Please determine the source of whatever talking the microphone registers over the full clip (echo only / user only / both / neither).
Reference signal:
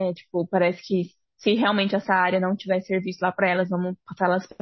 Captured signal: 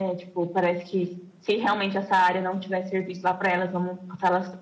echo only